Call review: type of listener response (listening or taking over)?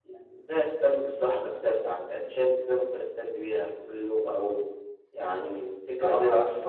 taking over